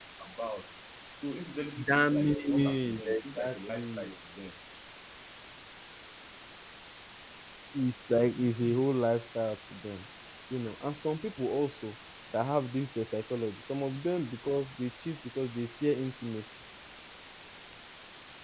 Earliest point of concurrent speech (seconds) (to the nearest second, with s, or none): 2 s